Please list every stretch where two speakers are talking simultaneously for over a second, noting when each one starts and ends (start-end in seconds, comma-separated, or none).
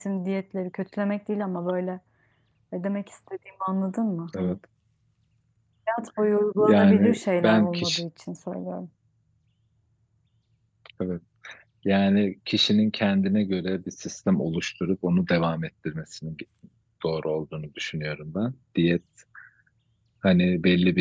6.6-8.0